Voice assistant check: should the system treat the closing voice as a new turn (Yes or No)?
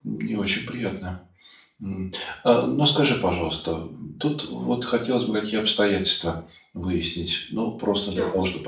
No